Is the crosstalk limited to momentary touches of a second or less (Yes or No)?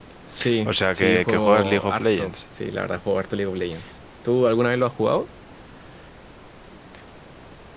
No